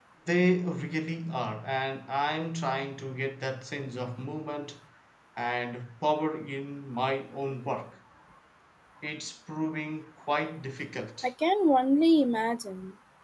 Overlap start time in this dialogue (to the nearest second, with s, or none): none